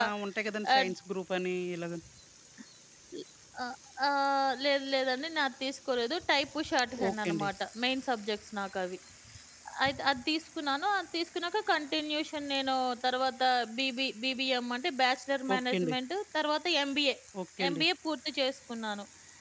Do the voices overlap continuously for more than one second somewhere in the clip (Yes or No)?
No